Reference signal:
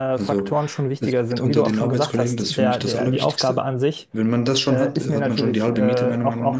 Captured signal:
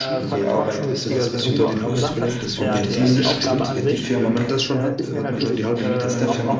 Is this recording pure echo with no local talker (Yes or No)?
No